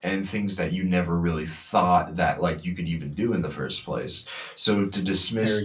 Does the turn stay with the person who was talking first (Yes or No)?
Yes